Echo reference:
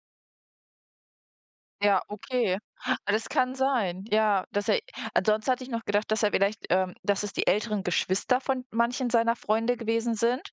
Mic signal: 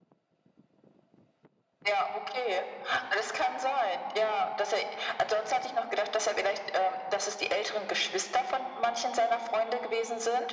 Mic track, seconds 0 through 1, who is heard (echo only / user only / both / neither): neither